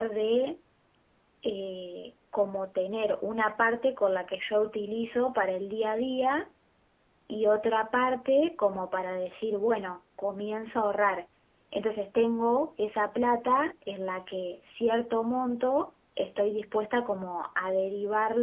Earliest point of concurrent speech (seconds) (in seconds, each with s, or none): none